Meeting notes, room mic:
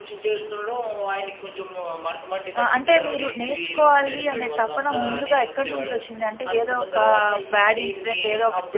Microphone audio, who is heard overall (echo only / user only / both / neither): both